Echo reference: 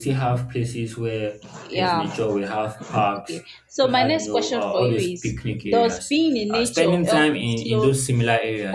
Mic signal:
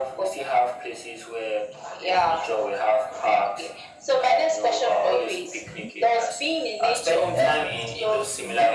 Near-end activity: present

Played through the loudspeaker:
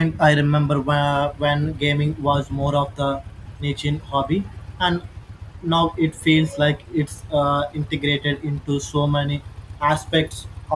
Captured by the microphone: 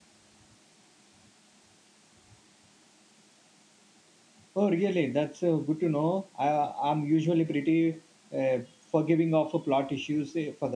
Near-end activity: present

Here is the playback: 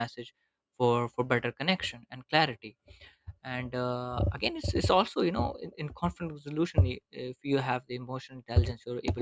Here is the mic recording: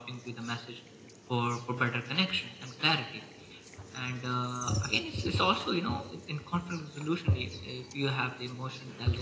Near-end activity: none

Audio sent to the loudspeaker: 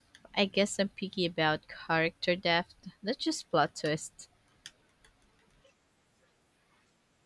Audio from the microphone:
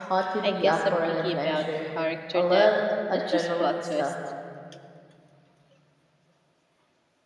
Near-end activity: present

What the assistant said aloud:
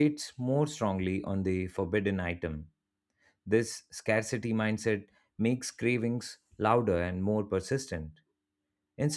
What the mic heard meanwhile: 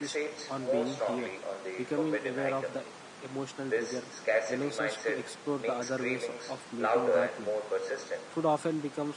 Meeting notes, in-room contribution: present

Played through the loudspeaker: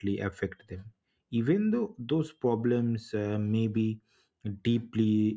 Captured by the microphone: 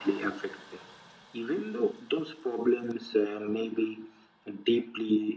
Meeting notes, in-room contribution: none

